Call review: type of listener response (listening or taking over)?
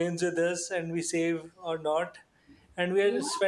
listening